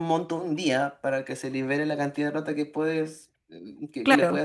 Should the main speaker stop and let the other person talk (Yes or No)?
Yes